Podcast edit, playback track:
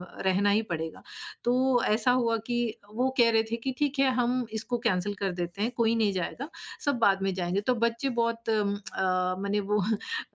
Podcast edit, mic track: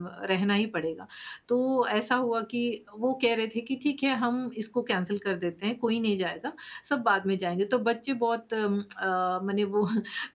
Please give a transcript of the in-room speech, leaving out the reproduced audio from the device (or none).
none